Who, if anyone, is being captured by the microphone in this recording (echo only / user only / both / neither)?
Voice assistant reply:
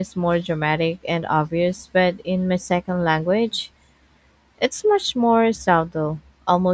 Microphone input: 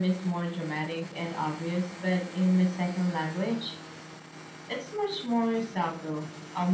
echo only